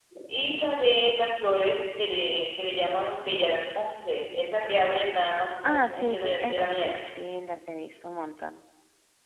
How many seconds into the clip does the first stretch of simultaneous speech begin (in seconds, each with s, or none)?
5.6 s